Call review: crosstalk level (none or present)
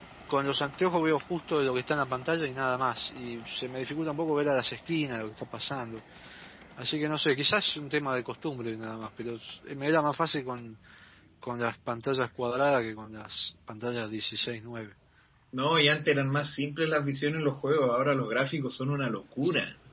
none